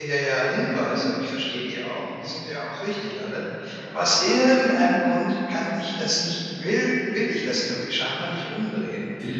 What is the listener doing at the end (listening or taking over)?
listening